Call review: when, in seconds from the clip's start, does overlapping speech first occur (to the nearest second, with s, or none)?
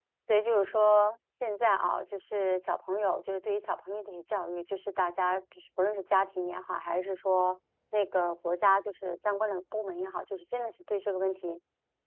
none